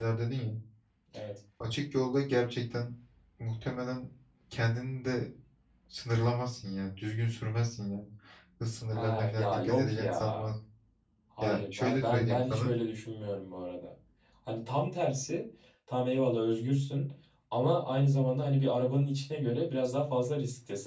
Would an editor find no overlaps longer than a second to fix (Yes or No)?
No